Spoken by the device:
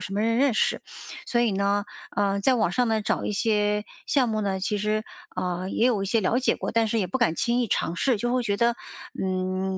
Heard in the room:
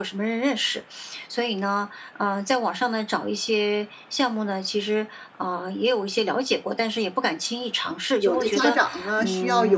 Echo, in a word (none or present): present